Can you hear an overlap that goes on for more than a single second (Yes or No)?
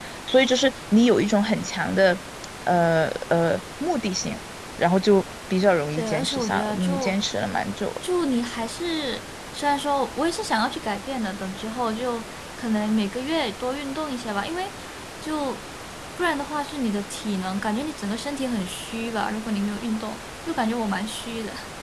Yes